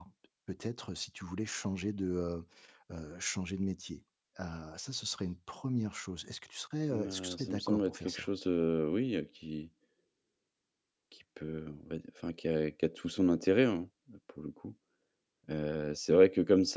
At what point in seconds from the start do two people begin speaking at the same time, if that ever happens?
6.9 s

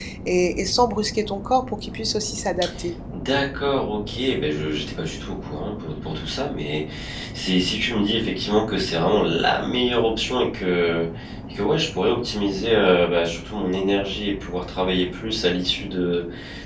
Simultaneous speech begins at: none

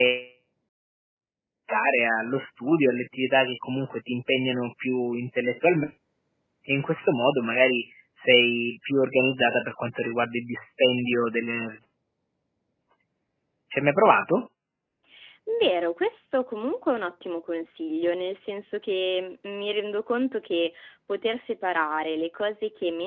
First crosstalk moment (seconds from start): none

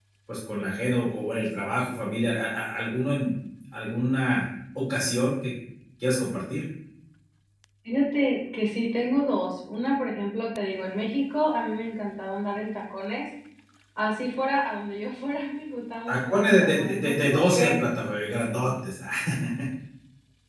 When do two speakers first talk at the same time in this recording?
16.1 s

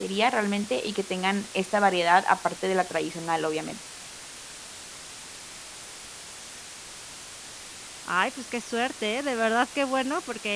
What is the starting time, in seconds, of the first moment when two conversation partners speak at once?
none

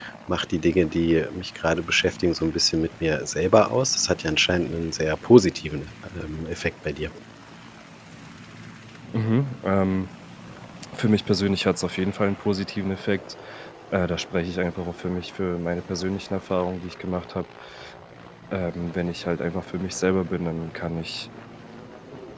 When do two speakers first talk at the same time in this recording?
none

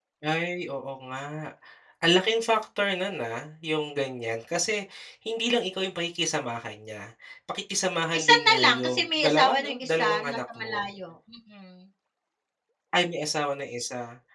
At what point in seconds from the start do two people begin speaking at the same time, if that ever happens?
8.1 s

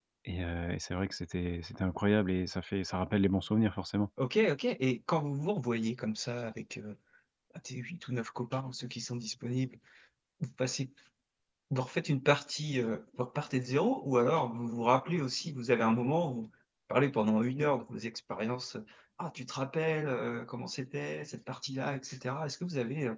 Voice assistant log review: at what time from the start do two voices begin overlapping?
none

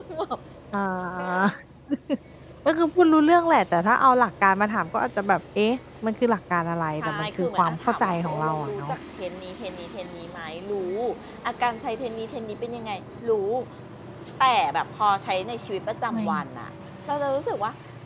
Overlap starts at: 7.0 s

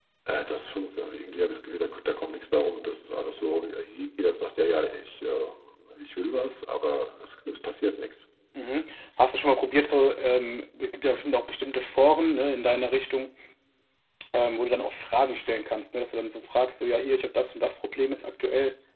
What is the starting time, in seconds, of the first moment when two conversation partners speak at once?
none

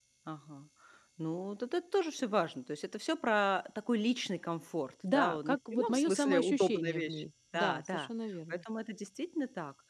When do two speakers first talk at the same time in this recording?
5.0 s

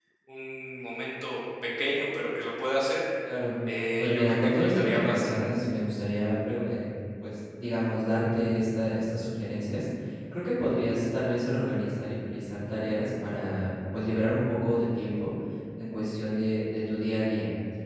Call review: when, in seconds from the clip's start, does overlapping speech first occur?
4.0 s

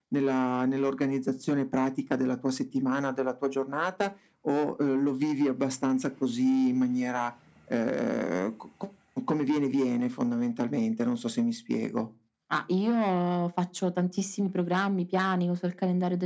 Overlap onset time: none

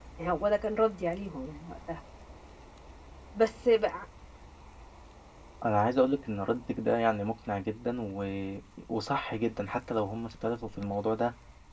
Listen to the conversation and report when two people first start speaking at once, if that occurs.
none

